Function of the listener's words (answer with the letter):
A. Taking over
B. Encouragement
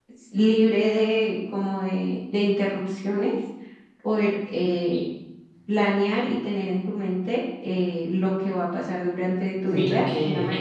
A